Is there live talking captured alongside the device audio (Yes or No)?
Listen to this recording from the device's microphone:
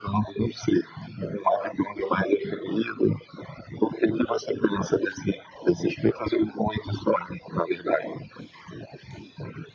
No